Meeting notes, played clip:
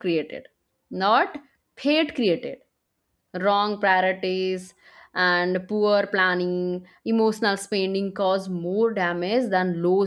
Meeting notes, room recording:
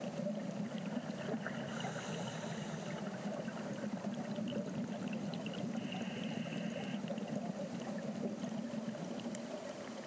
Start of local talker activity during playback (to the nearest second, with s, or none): none